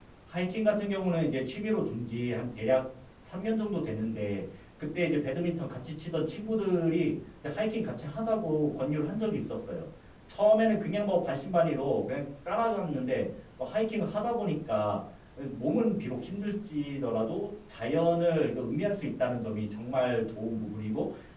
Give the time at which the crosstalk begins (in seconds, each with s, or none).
none